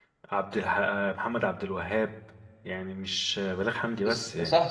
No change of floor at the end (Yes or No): No